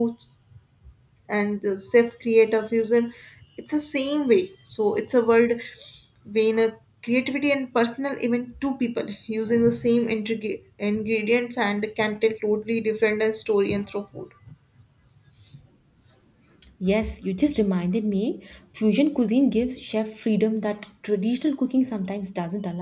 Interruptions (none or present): none